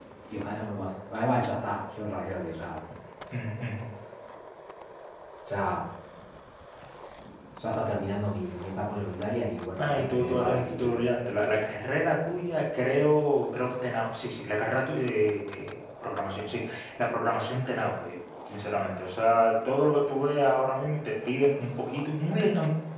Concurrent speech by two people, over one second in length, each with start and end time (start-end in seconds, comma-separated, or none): 9.8-11.0